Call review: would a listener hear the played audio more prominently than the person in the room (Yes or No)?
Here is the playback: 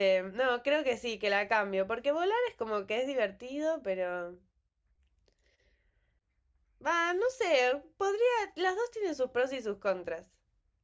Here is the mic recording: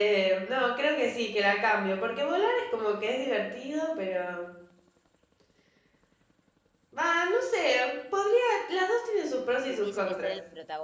Yes